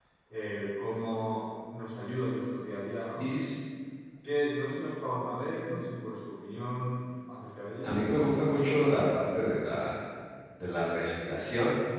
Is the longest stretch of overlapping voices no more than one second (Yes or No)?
Yes